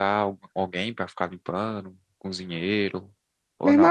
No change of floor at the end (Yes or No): No